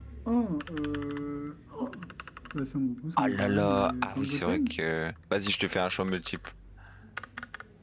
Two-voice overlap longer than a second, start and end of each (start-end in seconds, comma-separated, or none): 3.2-4.8